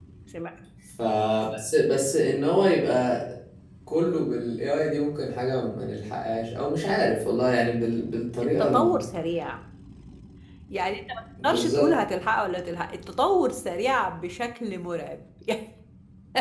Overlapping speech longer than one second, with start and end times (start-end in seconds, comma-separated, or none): none